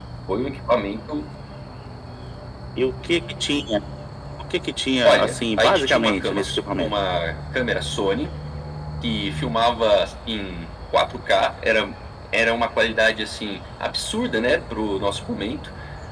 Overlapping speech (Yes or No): Yes